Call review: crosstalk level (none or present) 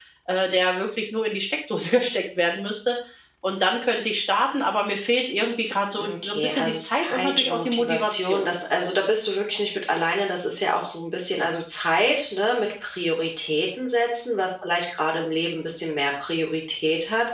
present